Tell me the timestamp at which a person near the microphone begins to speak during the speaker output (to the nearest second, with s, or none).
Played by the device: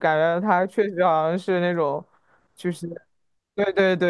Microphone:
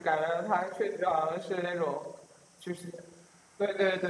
none